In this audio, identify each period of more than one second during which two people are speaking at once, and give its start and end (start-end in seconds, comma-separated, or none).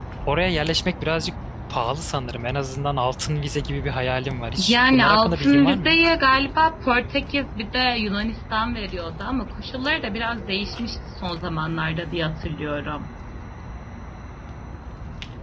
4.7-6.0